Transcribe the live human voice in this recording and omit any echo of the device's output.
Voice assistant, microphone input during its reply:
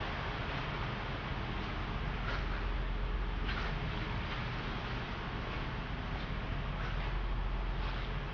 none

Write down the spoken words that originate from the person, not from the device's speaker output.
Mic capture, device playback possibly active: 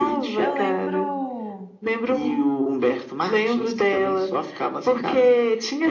Eu lembro,

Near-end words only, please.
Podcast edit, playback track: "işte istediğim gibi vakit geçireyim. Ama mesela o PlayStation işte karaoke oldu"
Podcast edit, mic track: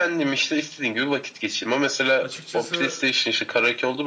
Açıkçası

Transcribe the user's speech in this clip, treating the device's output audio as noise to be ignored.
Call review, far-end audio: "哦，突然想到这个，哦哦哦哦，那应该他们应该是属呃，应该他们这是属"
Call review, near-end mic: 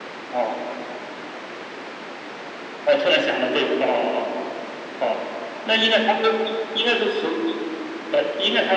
none

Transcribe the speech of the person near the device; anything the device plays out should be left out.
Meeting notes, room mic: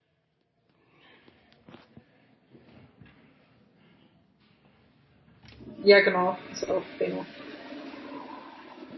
Ja, genau, ist auch Renault.

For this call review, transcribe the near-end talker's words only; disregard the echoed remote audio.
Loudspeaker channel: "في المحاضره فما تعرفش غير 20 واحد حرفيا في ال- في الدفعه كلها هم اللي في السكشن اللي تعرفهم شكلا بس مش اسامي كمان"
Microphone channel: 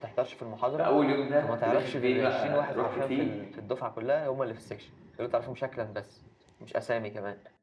فاول يوم ده كنت داخل فيه بقى رحت فيه

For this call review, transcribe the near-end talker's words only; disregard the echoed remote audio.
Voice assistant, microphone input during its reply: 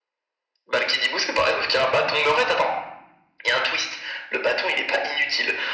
none

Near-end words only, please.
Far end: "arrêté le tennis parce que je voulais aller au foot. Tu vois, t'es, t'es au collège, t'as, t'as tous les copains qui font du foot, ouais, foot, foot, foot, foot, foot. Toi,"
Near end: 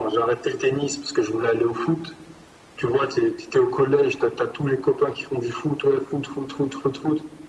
none

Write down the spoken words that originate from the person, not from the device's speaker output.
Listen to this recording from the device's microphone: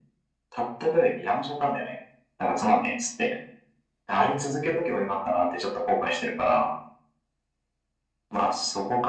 none

